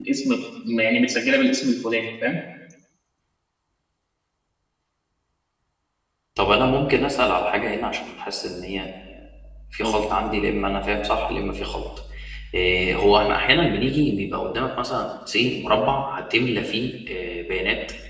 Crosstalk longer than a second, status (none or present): none